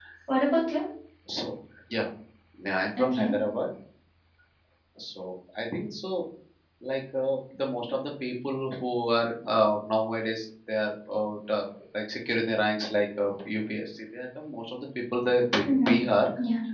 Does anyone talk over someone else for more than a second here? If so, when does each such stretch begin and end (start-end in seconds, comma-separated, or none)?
none